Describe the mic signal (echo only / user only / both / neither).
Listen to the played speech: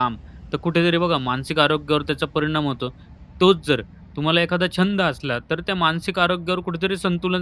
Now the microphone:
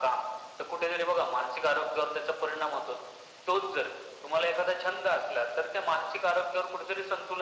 echo only